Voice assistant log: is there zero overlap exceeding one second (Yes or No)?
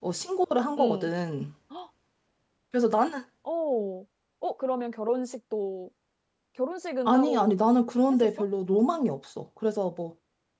Yes